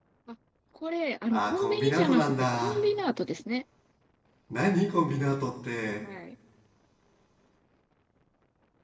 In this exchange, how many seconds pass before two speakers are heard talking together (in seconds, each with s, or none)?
1.3 s